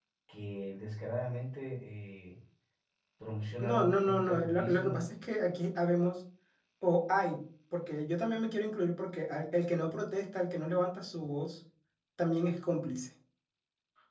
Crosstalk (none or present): present